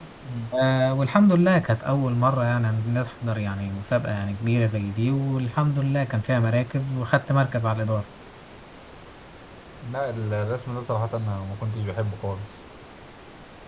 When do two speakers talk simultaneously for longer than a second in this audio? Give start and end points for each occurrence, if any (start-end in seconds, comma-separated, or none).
none